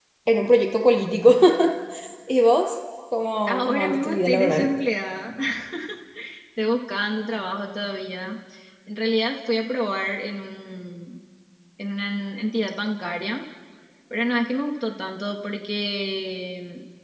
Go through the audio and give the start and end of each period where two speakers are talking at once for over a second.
3.5-4.7

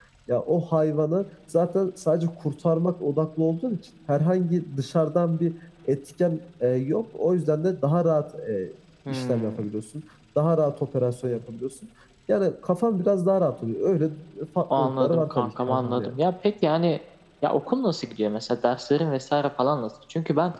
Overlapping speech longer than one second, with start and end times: 14.8-16.2

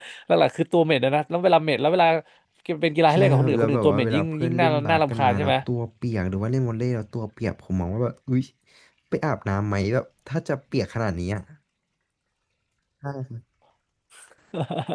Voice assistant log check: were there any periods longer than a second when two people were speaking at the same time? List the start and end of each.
3.1-5.5

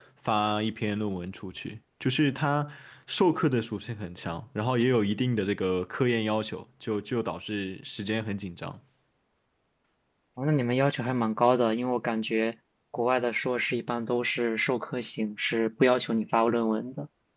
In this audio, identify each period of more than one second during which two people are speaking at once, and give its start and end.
none

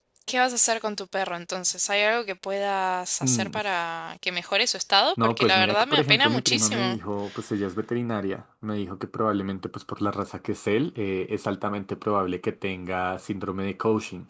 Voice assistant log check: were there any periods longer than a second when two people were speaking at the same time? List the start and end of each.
5.2-7.0

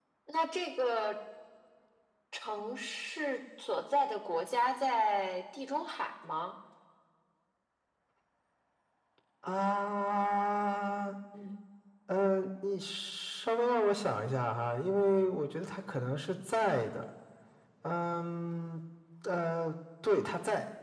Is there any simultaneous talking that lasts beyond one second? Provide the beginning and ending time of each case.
none

